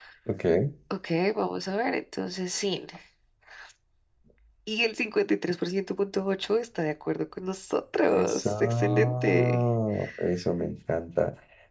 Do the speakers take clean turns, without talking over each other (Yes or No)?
No